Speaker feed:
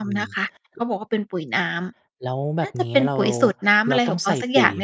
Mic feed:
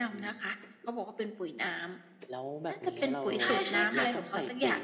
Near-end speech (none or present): present